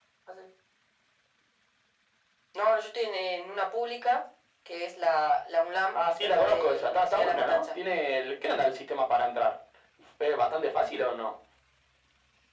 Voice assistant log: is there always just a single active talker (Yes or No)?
No